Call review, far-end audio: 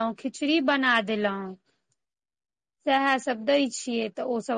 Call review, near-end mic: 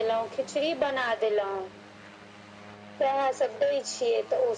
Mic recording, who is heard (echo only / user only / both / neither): echo only